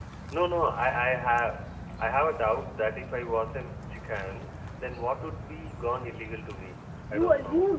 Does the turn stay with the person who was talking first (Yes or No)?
No